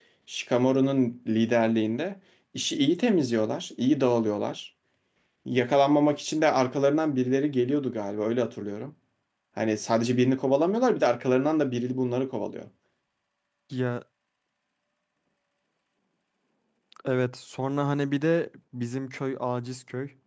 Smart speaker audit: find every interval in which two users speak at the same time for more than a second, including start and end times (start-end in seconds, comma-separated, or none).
none